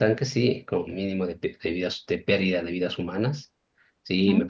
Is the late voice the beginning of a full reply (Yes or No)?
No